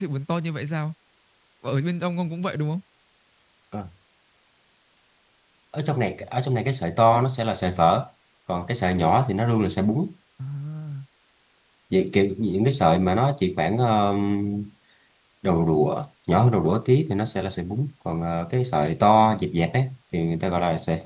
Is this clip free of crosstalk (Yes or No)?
Yes